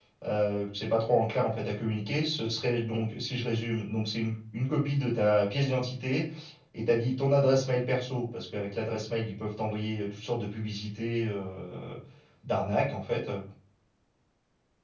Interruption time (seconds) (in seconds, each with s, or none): none